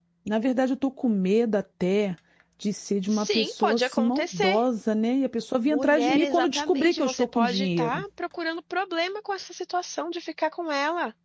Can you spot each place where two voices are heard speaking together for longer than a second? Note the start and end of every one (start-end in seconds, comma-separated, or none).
3.1-4.6, 5.7-8.0